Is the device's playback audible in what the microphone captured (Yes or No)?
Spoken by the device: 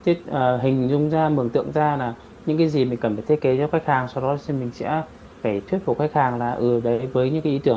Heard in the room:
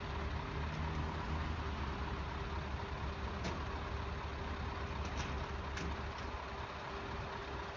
No